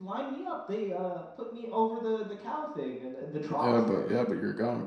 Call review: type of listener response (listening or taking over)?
taking over